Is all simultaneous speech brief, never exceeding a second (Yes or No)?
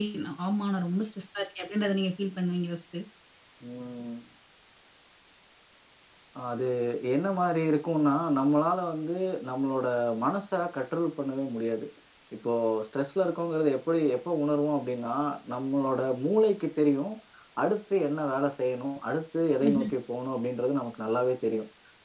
Yes